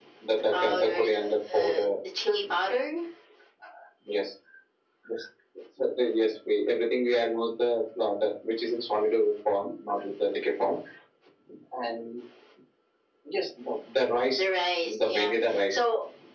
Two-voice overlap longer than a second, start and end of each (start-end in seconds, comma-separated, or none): 0.5-1.9